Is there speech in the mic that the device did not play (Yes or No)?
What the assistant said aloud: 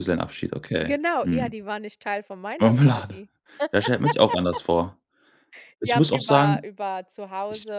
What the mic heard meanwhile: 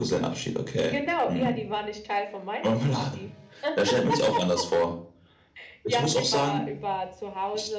No